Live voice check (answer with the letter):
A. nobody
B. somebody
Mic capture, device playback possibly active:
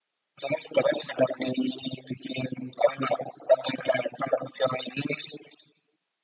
A